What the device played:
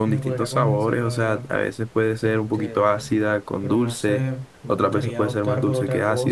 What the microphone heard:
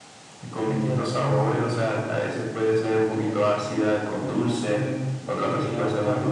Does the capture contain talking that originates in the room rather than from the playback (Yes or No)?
No